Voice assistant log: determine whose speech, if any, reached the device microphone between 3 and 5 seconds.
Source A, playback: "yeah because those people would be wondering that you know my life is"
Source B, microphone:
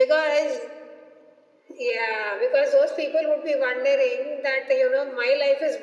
echo only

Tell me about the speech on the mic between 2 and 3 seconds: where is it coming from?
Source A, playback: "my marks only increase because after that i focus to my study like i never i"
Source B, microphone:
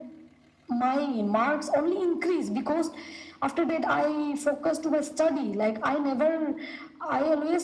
echo only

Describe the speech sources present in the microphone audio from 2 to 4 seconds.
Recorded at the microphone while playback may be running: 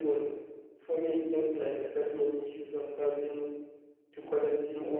echo only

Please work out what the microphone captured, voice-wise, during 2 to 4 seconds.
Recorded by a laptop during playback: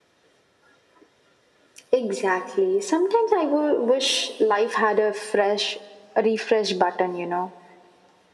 echo only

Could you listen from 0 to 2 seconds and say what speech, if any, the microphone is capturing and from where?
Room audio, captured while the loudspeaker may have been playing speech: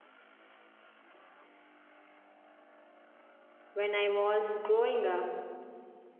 neither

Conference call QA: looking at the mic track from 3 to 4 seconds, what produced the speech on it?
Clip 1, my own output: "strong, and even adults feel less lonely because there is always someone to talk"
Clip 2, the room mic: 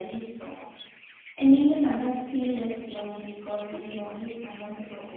echo only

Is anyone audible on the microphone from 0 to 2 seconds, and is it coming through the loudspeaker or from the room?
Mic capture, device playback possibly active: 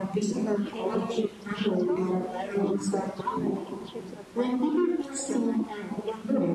both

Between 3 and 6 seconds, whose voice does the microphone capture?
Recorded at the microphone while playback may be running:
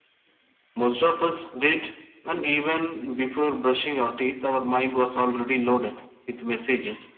echo only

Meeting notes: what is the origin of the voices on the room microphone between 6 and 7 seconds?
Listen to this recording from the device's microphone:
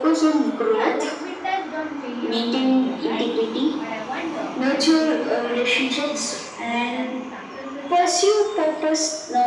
both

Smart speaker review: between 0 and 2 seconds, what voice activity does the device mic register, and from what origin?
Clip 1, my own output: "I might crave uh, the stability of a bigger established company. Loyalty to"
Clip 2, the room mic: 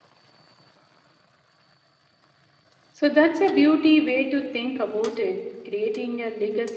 neither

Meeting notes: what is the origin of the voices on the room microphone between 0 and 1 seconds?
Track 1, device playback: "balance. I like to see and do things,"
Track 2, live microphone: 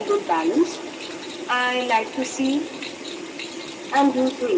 echo only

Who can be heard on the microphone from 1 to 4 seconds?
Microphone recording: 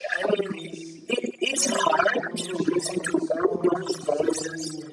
both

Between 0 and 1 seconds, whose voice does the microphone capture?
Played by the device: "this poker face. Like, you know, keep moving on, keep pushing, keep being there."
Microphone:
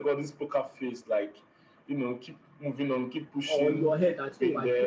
echo only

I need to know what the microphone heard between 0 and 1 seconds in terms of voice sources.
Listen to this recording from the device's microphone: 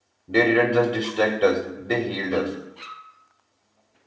user only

